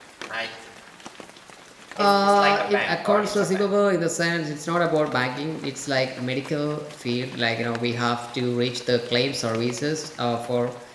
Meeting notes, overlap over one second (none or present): present